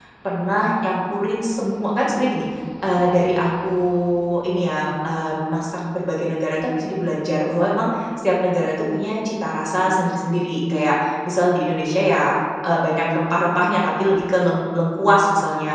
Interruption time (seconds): none

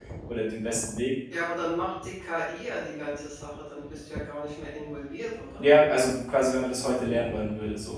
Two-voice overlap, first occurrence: none

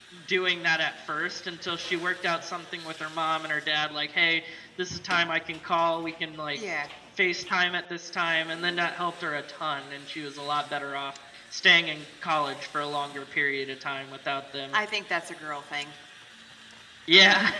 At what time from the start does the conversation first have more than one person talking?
none

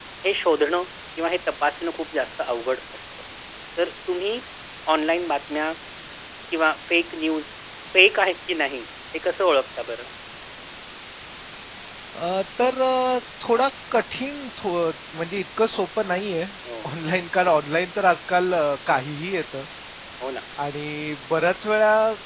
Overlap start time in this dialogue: none

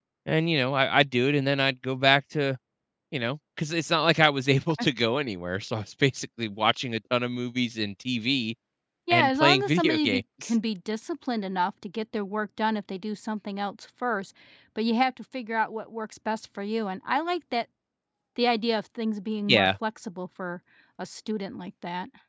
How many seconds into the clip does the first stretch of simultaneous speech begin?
9.1 s

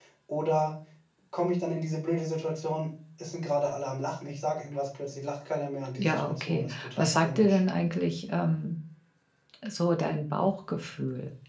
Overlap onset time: 6.0 s

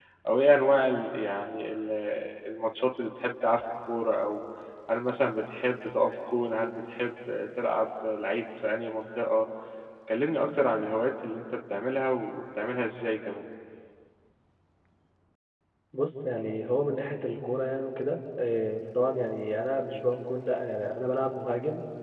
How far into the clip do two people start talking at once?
none

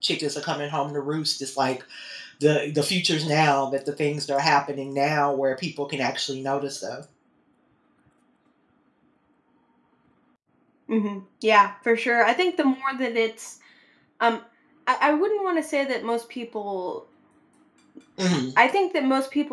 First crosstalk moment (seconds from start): none

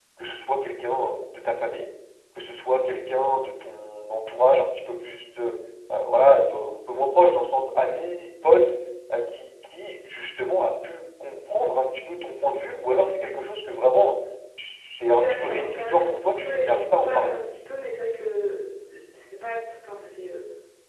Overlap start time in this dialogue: 15.1 s

